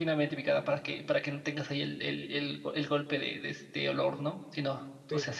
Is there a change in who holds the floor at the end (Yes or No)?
No